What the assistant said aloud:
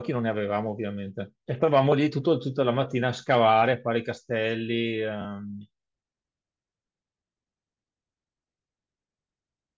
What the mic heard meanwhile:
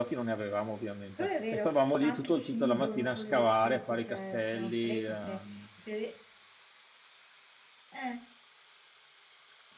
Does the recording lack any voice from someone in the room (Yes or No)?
No